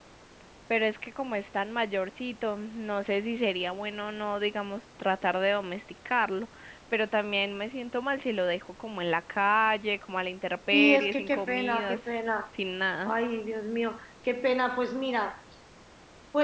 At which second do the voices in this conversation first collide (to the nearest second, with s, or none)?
11 s